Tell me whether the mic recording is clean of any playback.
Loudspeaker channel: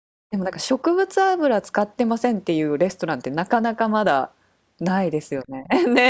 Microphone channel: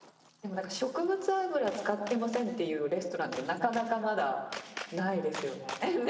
No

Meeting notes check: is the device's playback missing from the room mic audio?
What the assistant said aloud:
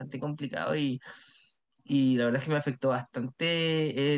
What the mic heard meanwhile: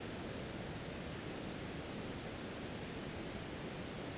Yes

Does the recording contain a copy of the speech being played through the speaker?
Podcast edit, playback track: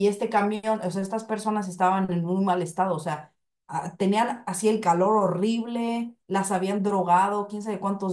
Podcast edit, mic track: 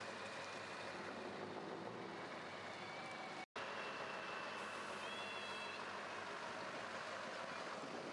No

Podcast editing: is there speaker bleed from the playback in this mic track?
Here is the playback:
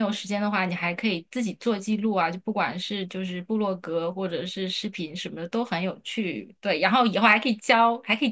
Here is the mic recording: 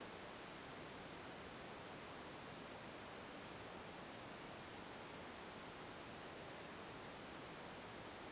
No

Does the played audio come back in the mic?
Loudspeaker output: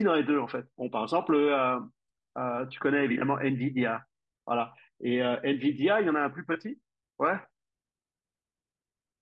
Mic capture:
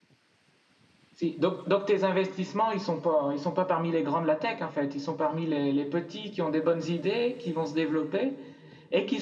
No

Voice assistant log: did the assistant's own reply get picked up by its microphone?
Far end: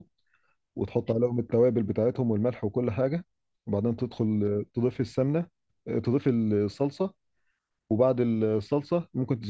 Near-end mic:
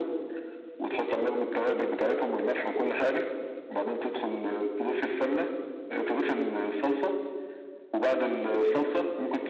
Yes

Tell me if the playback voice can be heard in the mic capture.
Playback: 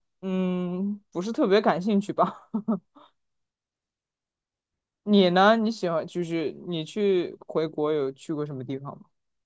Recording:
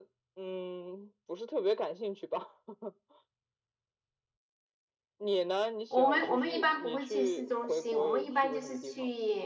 Yes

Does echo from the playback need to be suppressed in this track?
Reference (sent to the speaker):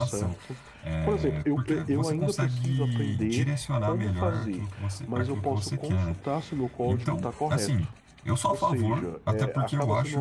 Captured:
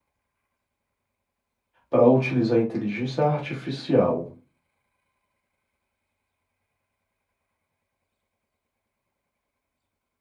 No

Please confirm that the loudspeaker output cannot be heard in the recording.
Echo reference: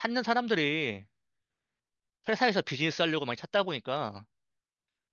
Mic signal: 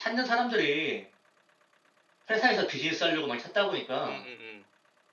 No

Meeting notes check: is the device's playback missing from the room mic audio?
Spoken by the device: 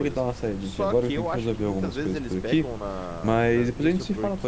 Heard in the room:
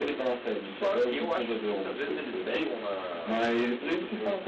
No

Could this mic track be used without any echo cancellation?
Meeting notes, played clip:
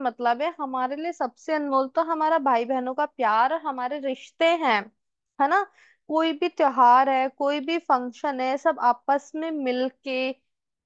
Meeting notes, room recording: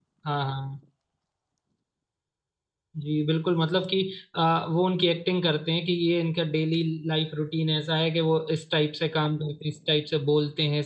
Yes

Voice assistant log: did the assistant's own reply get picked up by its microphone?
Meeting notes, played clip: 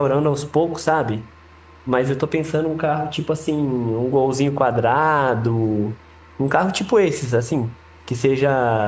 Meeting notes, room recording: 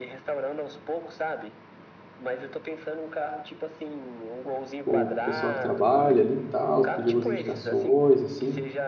Yes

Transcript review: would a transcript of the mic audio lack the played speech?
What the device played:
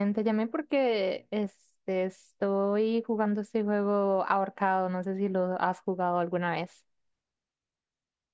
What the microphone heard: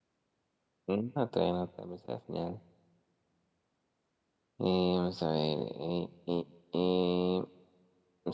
Yes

